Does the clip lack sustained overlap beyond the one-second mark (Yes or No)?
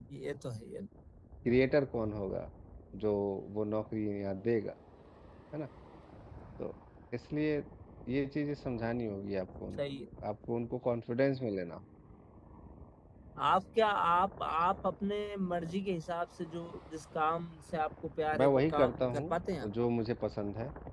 No